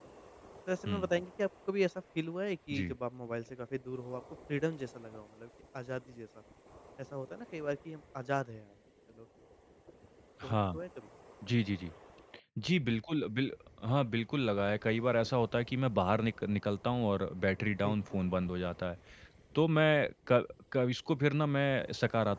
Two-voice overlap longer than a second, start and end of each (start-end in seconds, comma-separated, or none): none